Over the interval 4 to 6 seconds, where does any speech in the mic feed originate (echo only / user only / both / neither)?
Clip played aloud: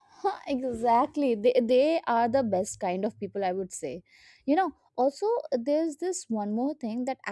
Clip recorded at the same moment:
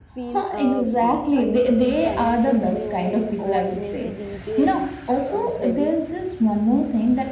both